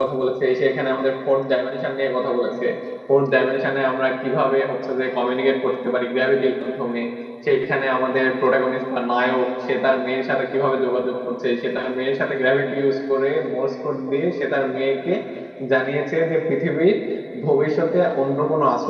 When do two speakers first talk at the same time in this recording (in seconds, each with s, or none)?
none